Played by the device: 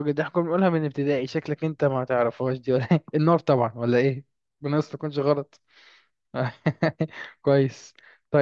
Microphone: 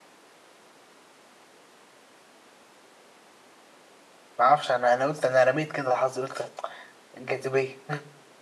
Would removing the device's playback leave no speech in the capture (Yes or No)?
No